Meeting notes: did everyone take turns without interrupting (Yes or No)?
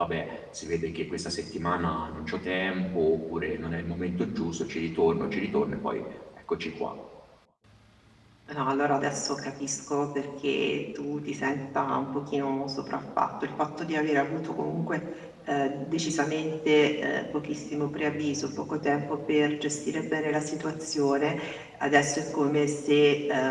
Yes